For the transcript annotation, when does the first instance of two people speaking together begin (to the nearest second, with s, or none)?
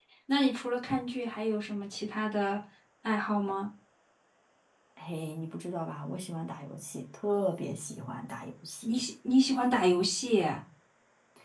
none